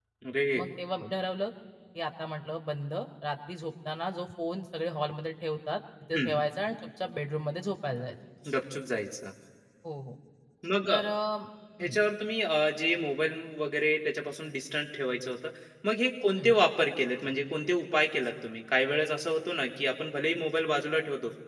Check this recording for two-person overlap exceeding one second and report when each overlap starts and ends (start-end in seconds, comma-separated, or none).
none